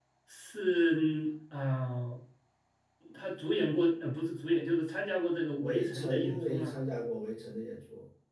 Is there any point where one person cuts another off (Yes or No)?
Yes